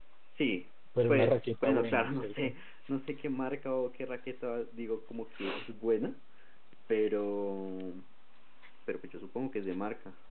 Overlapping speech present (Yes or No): Yes